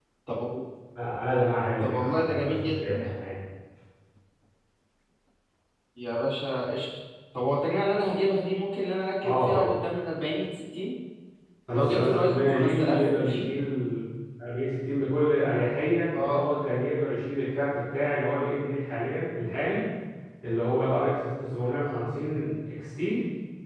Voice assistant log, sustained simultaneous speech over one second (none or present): present